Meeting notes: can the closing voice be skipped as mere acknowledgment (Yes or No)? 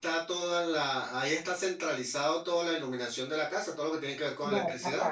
No